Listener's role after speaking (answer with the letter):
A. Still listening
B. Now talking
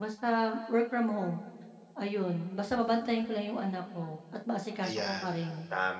B